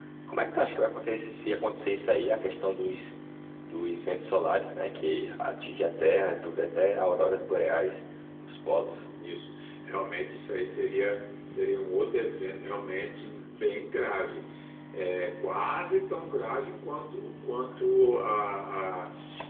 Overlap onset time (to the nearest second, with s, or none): none